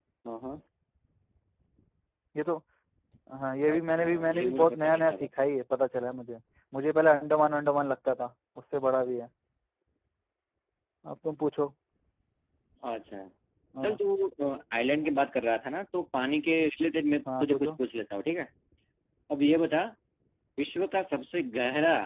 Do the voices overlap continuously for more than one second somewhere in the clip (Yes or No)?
Yes